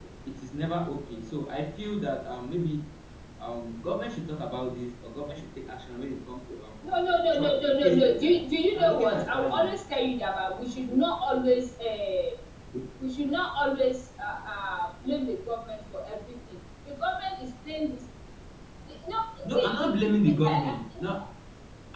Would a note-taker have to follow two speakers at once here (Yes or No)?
Yes